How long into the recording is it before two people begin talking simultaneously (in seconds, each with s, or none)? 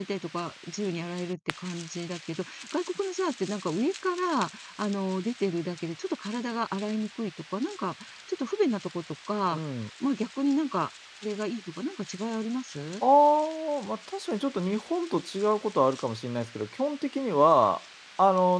none